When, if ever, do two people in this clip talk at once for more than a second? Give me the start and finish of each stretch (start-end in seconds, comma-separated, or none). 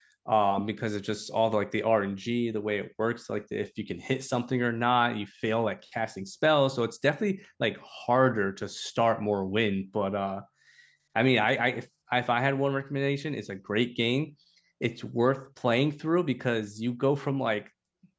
none